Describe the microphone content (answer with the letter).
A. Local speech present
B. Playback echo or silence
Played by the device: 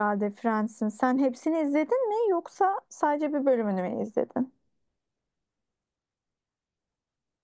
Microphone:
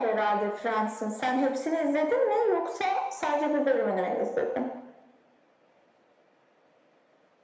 B